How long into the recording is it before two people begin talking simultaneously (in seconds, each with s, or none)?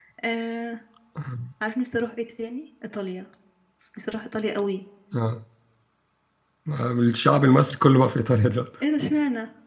none